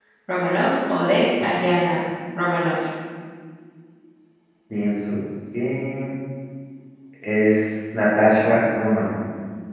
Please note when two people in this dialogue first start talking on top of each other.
none

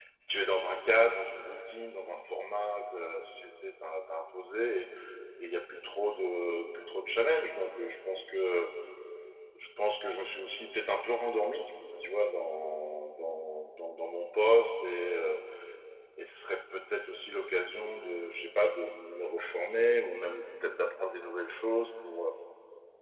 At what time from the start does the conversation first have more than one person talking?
none

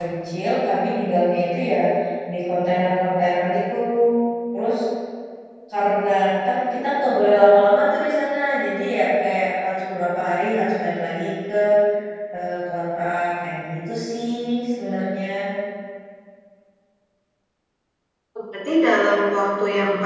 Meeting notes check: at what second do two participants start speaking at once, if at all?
none

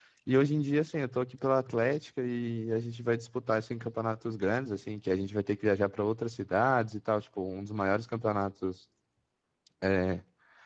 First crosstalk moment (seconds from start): none

